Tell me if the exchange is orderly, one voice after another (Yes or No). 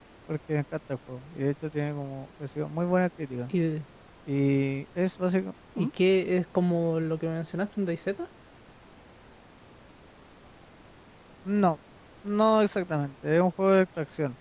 Yes